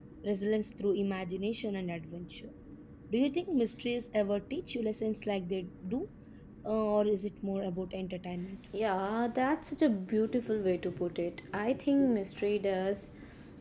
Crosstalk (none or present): none